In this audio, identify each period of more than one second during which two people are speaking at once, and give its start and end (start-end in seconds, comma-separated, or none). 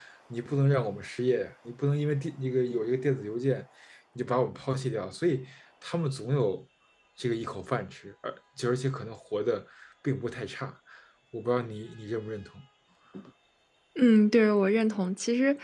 none